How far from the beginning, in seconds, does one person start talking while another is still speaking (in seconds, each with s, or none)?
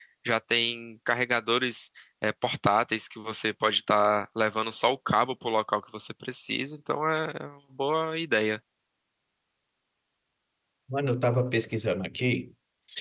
none